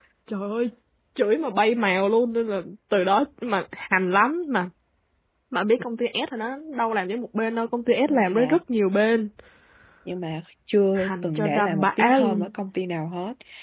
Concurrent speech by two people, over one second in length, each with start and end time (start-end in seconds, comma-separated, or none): 10.9-12.5